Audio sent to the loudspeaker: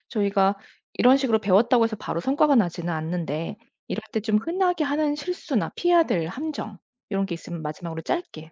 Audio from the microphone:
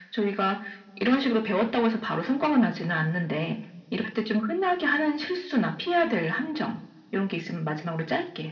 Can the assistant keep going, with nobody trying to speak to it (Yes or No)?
Yes